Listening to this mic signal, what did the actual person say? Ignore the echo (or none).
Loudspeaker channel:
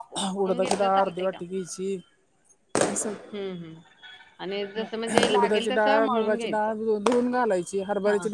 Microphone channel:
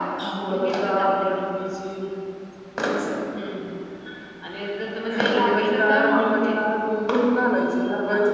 none